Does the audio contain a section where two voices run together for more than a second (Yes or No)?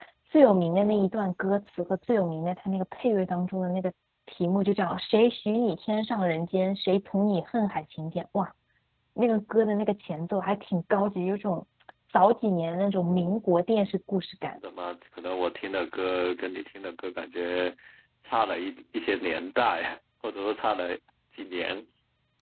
No